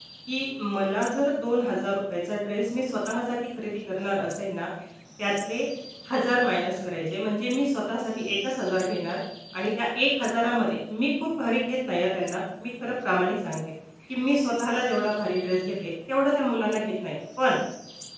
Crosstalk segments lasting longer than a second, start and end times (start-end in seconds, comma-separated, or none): none